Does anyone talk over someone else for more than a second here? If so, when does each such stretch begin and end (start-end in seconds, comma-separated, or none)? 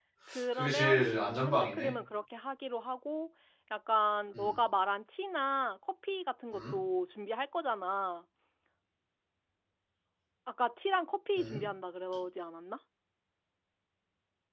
0.5-1.9